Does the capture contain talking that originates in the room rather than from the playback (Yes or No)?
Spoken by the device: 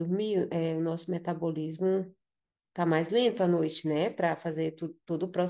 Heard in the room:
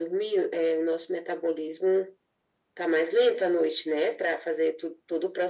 No